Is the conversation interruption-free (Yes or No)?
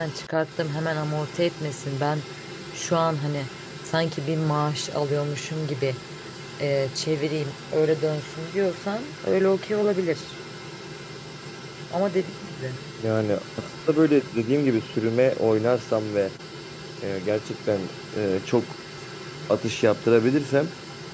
Yes